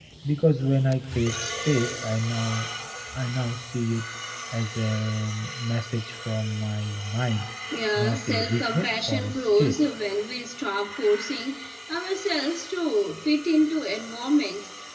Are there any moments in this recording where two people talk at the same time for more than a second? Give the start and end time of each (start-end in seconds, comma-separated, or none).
8.0-9.8